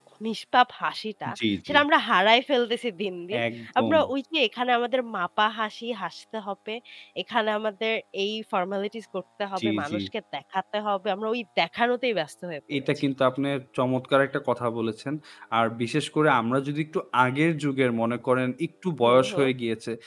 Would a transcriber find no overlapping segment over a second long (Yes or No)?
Yes